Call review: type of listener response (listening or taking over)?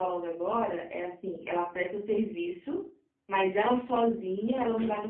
listening